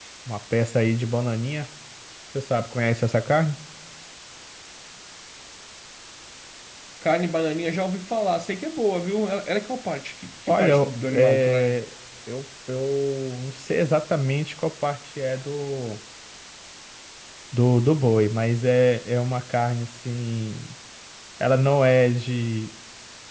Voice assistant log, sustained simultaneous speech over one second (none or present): present